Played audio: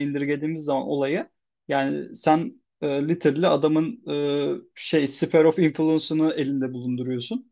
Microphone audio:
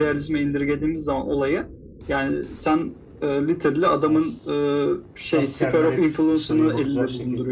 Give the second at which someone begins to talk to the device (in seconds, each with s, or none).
4.0 s